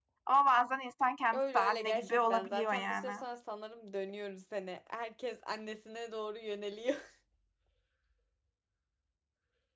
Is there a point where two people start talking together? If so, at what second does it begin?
1.3 s

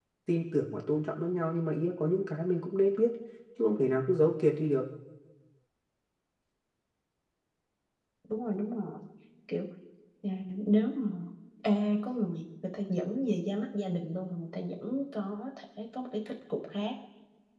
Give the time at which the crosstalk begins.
none

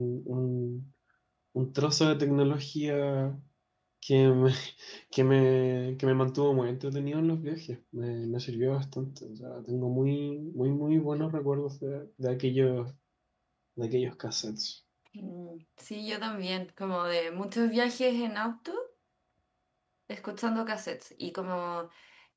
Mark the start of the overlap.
none

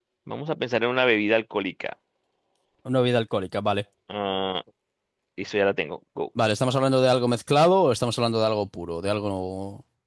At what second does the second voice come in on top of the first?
none

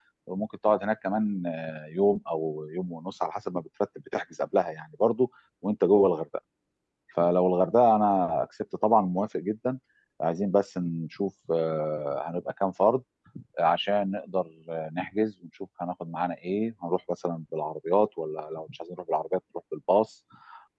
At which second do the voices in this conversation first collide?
none

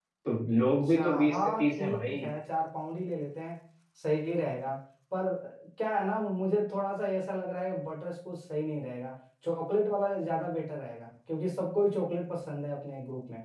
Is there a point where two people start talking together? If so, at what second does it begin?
0.7 s

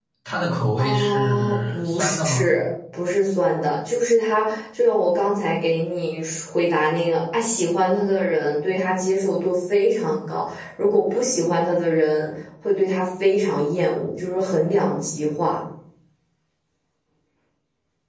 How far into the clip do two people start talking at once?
0.8 s

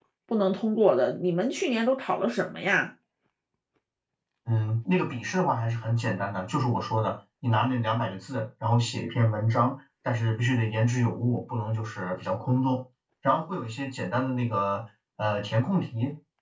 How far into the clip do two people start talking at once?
none

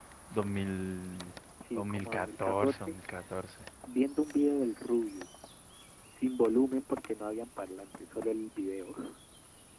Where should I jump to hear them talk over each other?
1.7 s

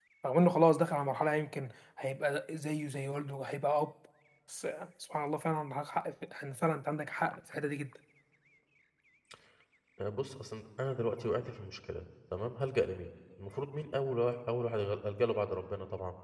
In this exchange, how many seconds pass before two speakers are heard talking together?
none

